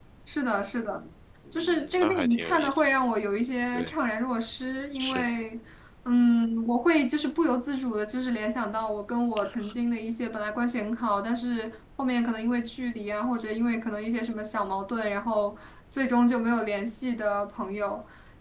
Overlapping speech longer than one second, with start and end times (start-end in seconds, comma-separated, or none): 1.5-2.8